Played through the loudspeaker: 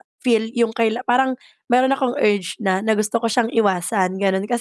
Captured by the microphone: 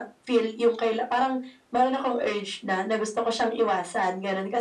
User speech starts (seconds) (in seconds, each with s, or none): none